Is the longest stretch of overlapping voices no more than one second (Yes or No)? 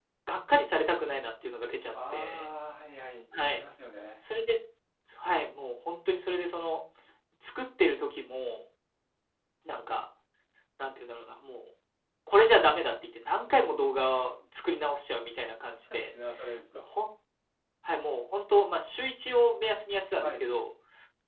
Yes